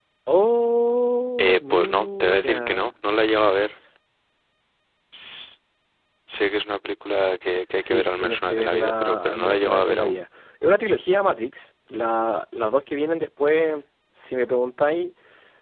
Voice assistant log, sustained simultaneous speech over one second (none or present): present